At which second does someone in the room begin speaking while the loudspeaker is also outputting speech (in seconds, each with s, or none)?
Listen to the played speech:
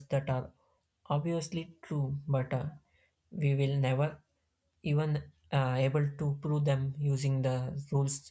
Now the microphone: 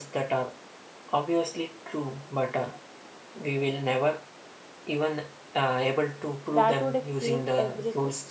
6.5 s